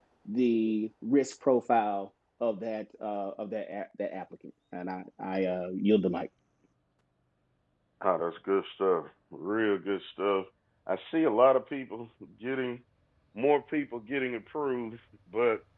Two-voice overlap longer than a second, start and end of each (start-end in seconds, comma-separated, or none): none